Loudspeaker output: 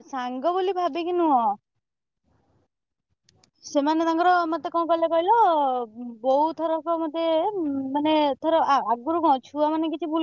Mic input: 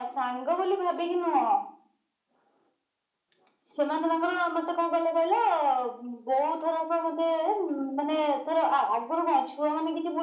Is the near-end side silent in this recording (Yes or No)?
Yes